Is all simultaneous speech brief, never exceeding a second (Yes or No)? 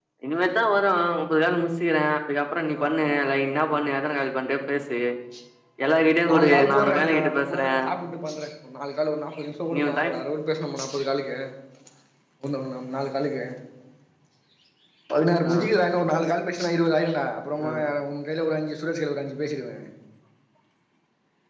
No